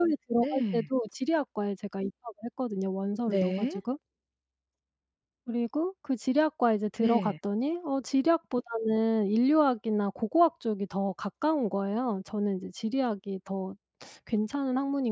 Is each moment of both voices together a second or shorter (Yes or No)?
Yes